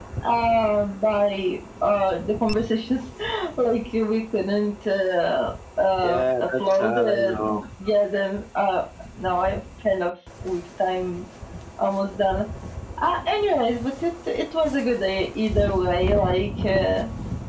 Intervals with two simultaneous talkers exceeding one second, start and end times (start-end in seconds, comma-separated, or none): 6.0-7.6